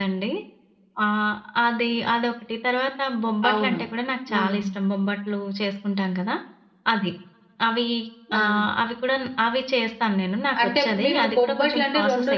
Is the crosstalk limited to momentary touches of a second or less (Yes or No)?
No